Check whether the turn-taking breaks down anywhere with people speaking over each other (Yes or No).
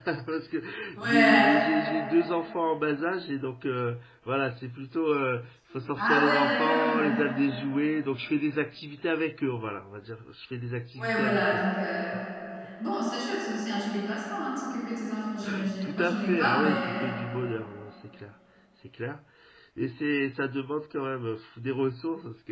Yes